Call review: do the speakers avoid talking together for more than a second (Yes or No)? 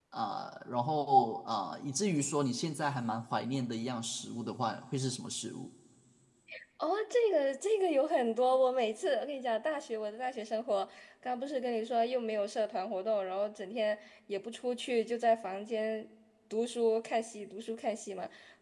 Yes